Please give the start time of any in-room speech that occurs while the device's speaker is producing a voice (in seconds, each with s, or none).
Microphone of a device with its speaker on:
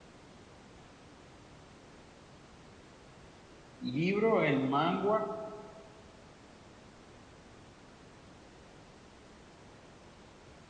3.8 s